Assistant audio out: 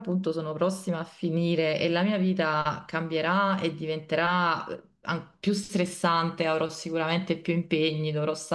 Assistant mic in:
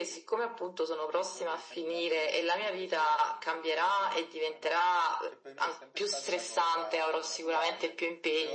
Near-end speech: present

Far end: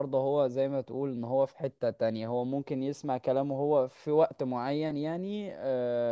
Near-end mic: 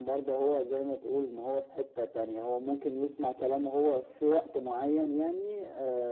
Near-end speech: none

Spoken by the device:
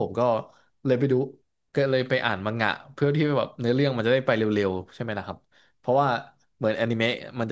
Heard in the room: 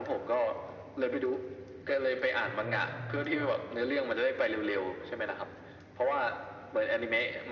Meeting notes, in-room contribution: present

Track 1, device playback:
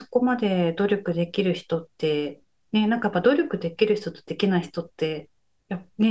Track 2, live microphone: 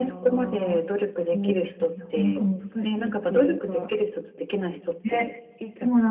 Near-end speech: present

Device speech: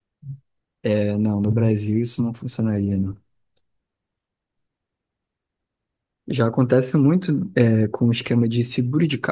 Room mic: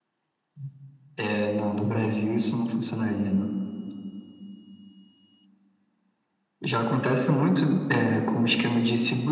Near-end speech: none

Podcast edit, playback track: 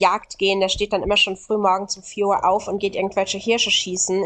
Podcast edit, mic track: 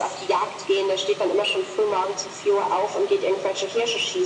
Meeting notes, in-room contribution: none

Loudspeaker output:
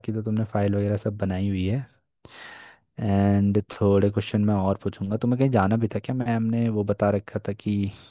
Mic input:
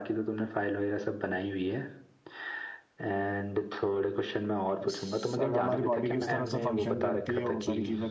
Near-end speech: present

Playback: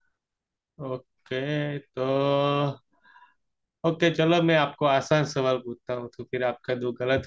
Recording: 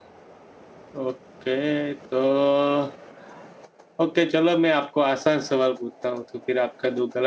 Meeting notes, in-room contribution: none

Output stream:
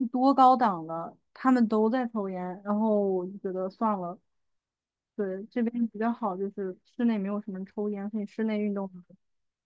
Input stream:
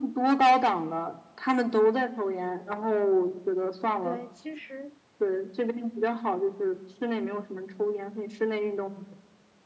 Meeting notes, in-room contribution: present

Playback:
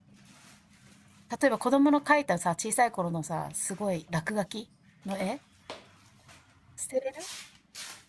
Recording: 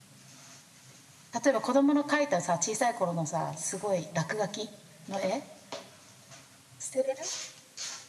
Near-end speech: none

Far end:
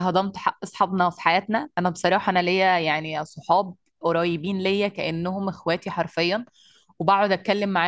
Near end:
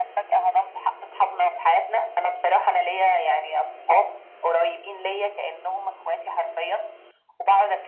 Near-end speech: none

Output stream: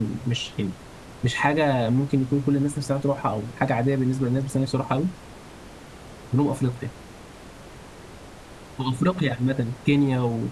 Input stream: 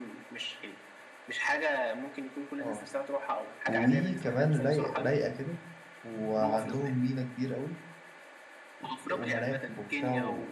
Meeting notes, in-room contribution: present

